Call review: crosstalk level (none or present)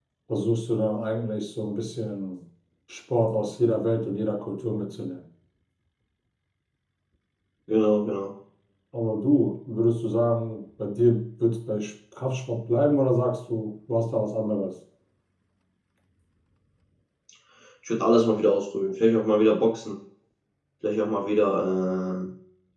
none